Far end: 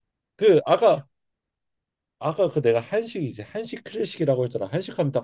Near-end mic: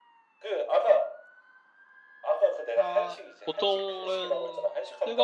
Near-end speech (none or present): present